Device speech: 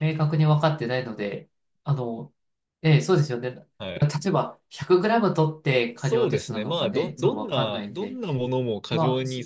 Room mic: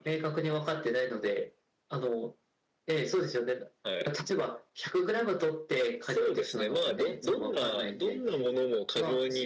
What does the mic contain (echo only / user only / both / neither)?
echo only